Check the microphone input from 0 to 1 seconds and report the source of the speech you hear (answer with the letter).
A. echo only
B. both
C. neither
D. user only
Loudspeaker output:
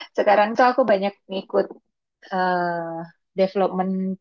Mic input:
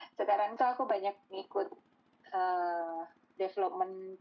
A